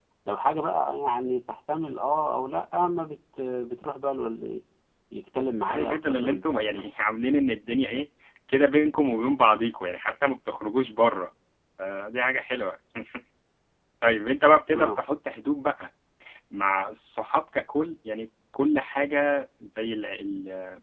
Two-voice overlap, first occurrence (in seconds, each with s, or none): 5.6 s